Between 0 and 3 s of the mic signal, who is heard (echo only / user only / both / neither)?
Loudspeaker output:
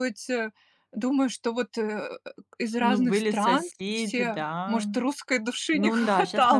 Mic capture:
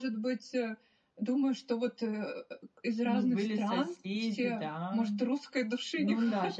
echo only